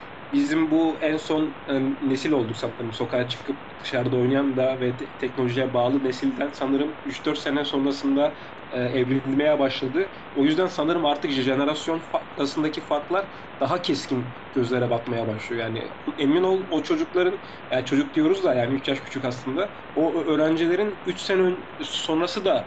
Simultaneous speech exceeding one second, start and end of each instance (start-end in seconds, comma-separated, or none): none